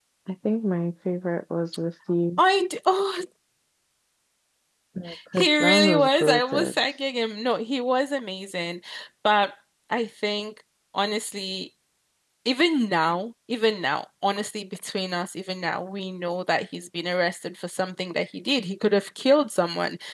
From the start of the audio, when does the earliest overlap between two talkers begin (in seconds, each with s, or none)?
5.4 s